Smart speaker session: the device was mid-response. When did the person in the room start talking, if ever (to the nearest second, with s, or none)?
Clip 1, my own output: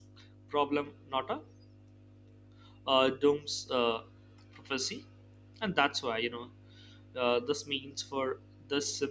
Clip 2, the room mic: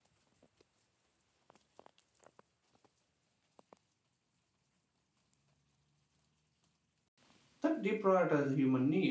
8 s